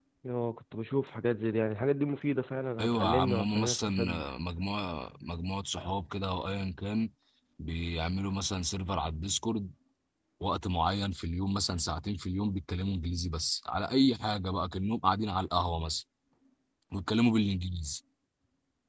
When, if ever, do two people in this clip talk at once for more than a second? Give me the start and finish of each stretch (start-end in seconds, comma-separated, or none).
2.8-4.2